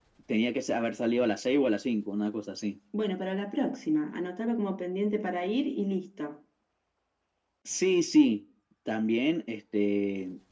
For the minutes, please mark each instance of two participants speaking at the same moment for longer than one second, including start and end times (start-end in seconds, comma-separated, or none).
none